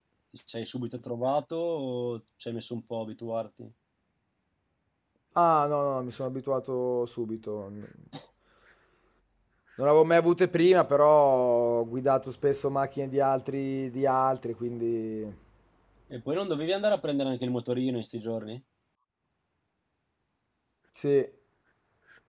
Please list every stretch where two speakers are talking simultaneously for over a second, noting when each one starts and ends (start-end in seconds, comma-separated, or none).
none